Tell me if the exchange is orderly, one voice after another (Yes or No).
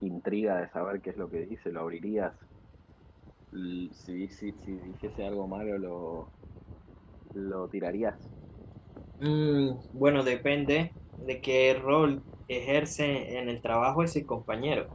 Yes